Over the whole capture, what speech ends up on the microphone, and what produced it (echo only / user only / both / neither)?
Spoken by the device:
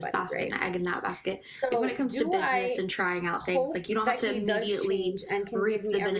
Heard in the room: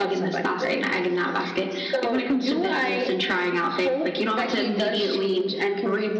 echo only